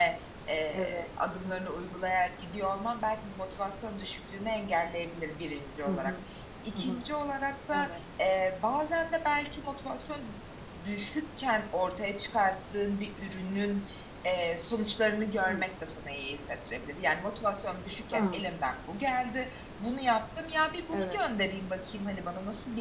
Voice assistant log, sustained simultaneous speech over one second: none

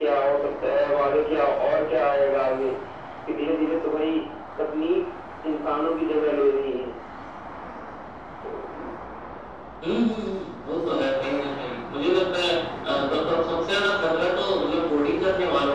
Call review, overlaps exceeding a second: none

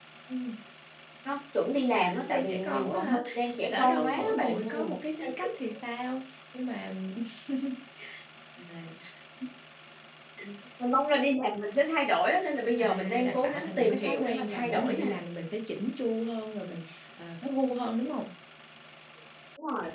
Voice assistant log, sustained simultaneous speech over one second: present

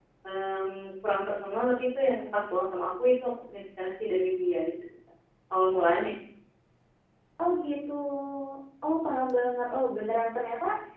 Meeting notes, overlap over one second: none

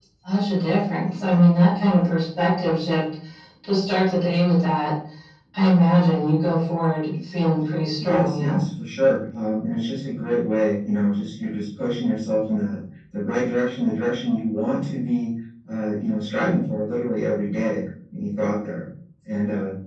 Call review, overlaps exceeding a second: none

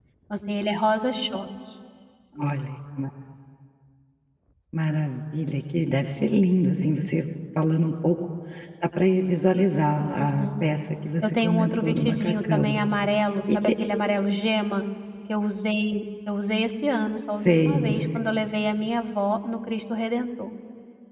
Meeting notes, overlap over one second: present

